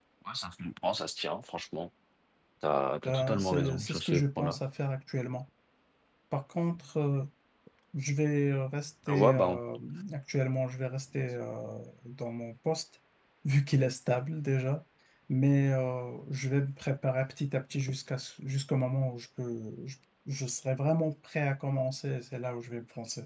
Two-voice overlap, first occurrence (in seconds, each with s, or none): 3.0 s